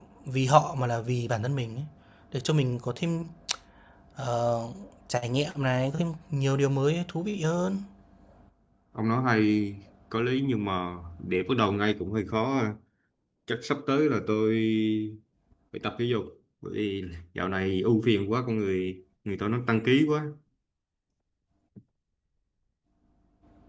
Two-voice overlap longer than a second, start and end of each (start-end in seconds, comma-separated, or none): none